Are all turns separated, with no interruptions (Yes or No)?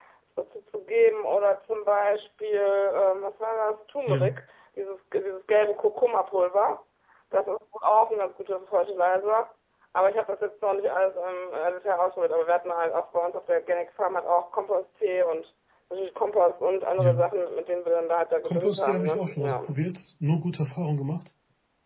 No